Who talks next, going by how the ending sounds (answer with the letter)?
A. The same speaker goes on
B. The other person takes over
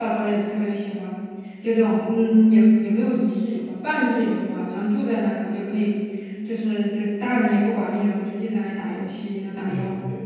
B